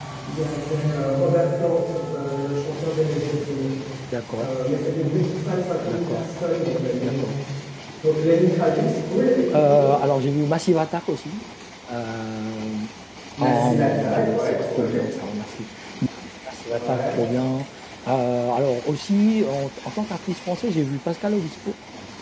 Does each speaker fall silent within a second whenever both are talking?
No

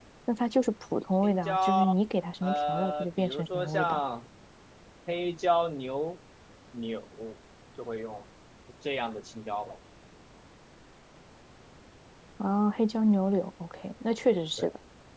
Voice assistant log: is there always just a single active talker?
No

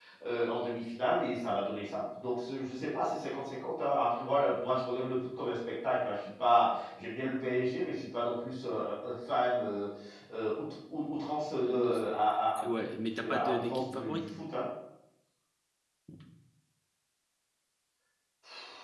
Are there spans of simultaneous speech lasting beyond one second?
Yes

